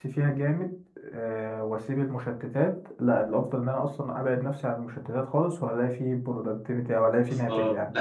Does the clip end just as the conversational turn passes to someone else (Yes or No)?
Yes